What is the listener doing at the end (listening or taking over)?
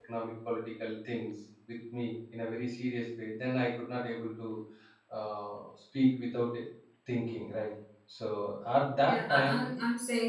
taking over